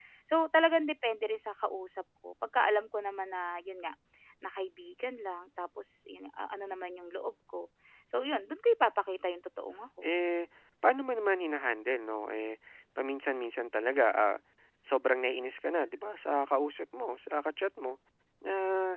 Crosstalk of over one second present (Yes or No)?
No